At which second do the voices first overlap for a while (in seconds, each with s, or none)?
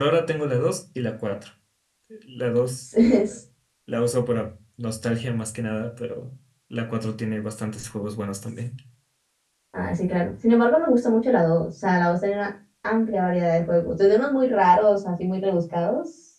none